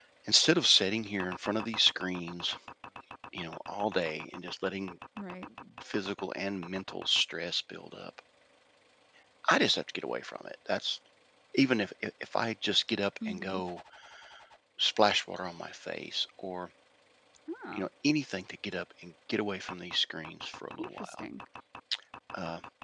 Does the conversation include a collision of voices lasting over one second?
No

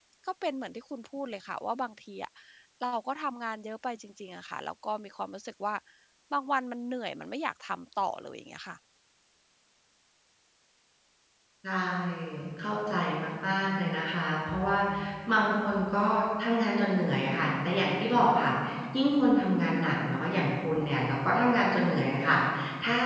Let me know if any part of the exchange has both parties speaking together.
No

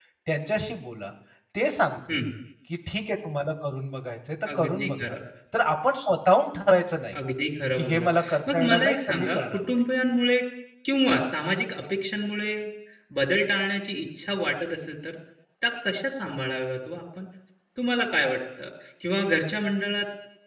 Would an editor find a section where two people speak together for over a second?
Yes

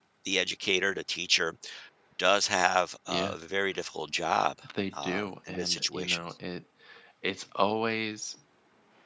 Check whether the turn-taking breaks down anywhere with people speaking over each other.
Yes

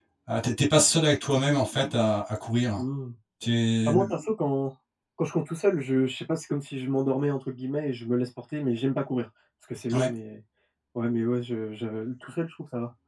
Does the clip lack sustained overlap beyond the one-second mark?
Yes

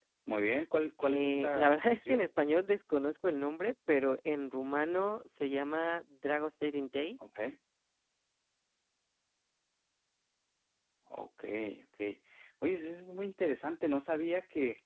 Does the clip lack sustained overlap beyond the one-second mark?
No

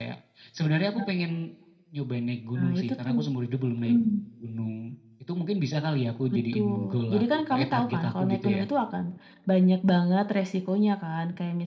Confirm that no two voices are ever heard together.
No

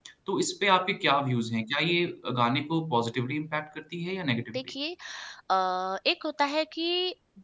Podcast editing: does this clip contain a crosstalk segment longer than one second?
No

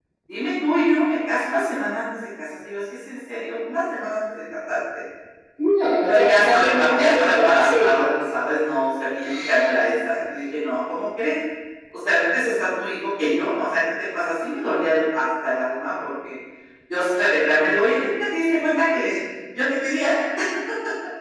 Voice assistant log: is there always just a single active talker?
No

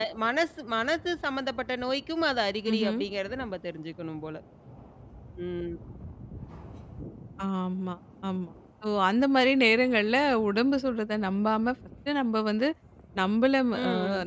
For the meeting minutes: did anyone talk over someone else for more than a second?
No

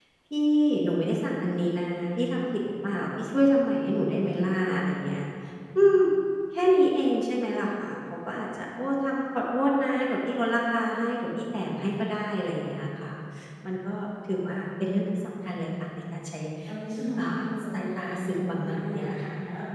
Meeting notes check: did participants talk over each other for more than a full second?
Yes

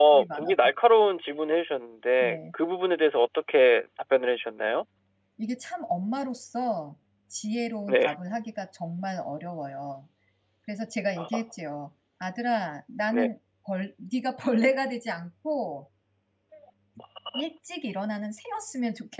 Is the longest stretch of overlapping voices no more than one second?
Yes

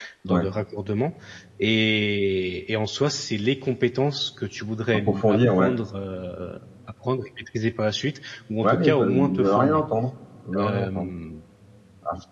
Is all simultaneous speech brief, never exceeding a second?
No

